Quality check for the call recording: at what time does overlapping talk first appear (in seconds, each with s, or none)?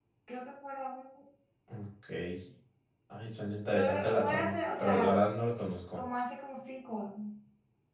3.7 s